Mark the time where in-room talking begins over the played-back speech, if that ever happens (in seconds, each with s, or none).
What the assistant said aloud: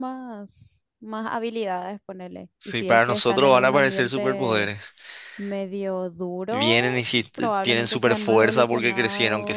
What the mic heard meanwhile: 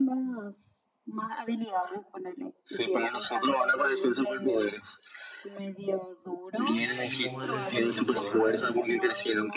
6.8 s